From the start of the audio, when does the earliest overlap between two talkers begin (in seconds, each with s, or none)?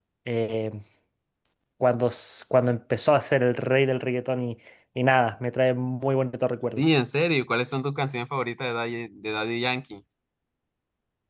none